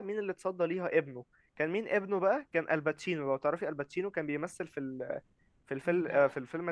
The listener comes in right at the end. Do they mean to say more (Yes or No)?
No